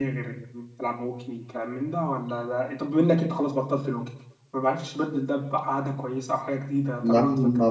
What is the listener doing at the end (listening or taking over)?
taking over